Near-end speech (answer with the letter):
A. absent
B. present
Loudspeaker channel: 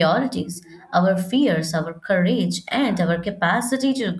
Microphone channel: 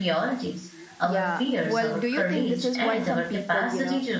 B